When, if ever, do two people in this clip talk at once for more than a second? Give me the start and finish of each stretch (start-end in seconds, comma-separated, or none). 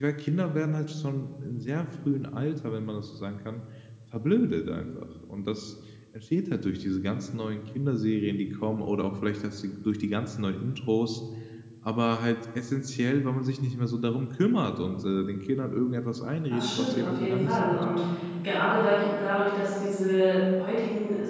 16.5-17.8